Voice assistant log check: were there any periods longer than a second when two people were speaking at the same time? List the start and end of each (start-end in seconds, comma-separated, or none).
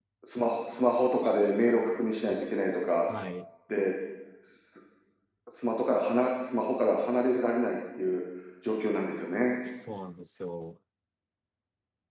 none